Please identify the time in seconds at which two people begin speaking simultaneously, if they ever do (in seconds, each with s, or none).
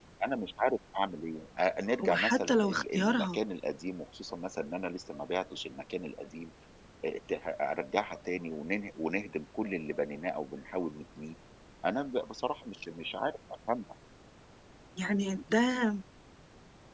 2.0 s